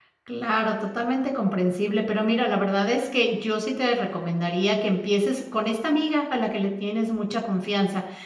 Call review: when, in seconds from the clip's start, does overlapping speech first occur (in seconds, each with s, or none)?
none